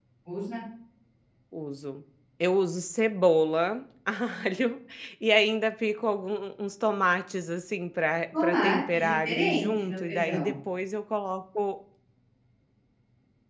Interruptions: present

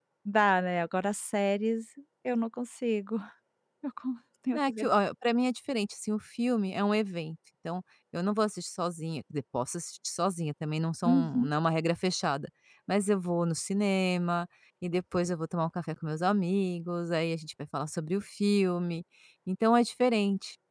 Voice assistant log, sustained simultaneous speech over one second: none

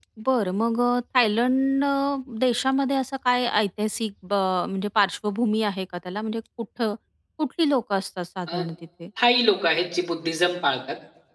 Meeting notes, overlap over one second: none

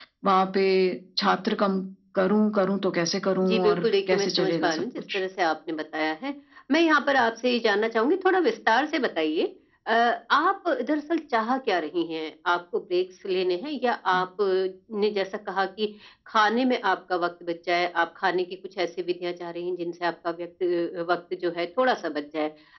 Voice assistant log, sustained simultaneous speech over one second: present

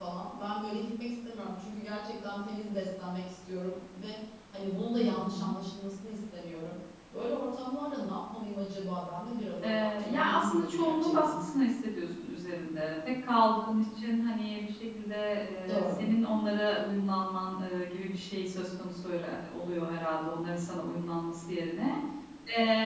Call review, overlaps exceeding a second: present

